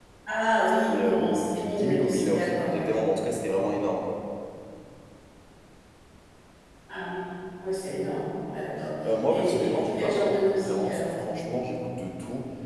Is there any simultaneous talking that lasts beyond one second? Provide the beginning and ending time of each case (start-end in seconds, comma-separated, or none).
0.9-2.9, 9.3-11.1